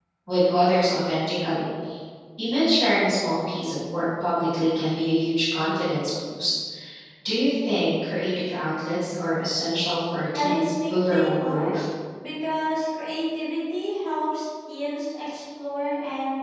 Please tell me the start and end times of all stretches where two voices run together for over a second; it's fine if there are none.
10.3-11.7

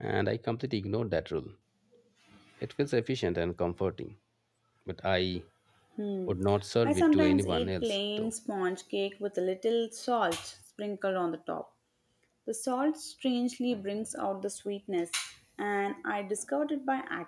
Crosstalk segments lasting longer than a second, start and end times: 6.8-8.3

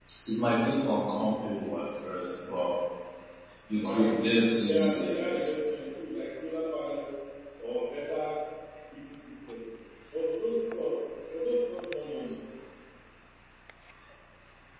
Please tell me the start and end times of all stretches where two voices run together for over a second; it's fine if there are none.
3.8-5.5

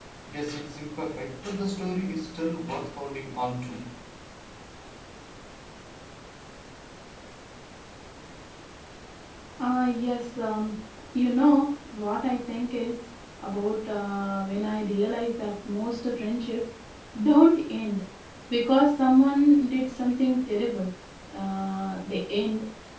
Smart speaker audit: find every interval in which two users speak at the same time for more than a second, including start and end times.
none

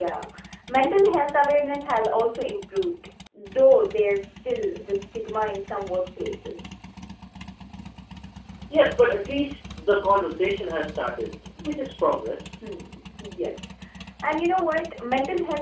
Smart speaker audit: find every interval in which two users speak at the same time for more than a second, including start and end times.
none

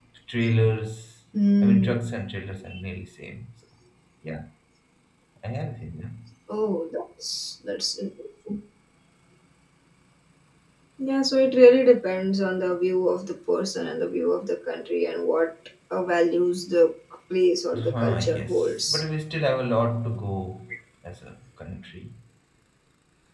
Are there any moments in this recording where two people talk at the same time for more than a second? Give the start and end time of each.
17.7-19.0

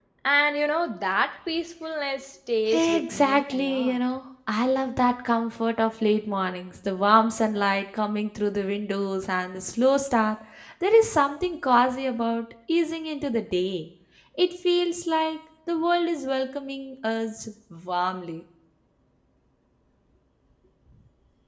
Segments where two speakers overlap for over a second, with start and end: 2.7-4.0

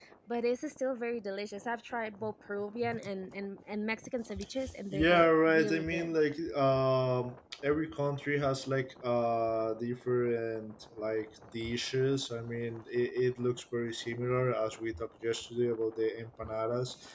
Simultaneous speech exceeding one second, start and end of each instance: 4.9-6.1

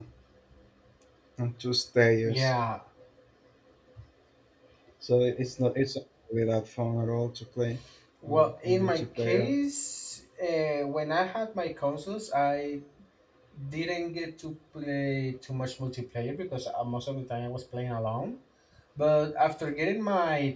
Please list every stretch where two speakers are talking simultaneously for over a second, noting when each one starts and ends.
8.3-9.5

